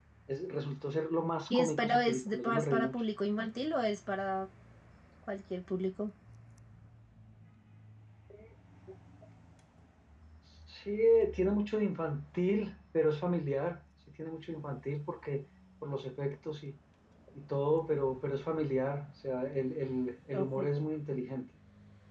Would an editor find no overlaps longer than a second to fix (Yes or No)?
No